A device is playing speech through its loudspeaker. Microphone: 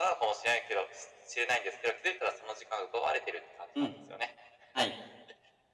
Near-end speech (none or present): present